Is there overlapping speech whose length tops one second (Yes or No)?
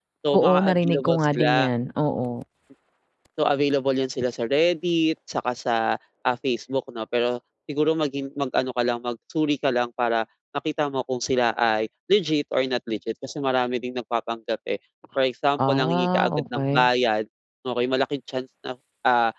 Yes